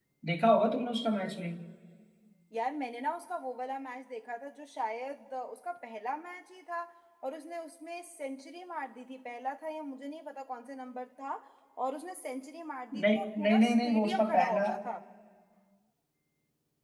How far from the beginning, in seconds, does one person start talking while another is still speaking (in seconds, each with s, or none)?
12.9 s